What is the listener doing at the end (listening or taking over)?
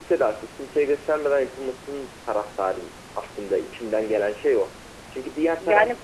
listening